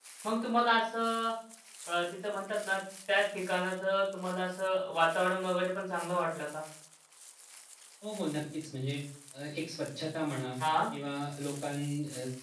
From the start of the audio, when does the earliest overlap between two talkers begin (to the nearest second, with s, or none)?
none